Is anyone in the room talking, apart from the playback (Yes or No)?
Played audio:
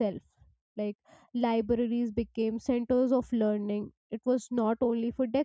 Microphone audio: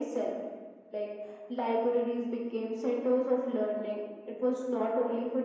No